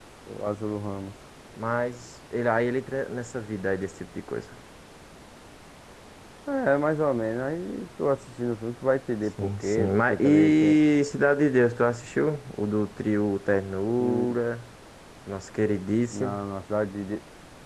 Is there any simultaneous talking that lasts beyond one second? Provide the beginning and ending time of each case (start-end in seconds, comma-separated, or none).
9.4-10.8